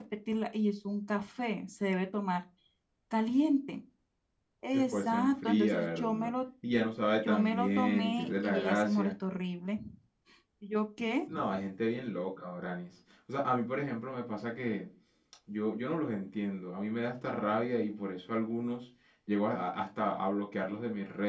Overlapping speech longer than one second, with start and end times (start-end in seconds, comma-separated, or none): 4.7-6.3, 7.2-9.1